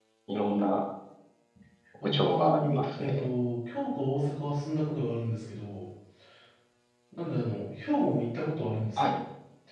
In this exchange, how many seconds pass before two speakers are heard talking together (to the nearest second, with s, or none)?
2 s